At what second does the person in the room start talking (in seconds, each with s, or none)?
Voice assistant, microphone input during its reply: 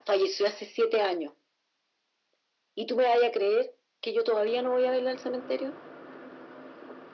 none